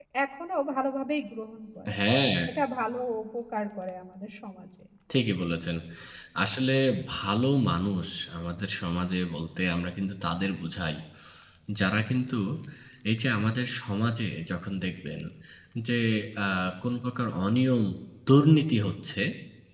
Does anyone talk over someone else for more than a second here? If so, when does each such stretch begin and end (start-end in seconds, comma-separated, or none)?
none